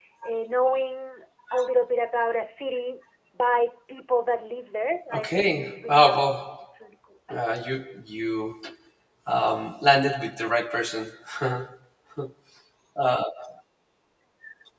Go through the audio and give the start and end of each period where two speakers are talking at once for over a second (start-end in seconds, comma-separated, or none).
5.1-6.5